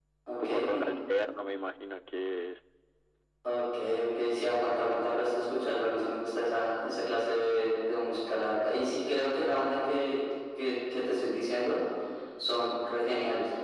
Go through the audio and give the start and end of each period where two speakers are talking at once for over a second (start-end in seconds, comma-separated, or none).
none